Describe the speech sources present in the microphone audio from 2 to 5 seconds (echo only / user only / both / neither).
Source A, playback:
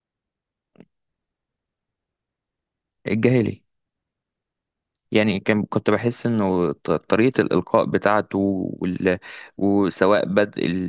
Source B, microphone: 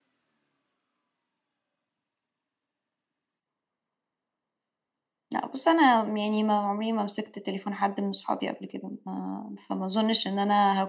neither